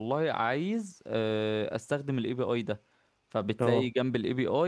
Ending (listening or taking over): listening